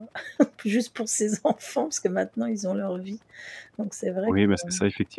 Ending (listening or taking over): taking over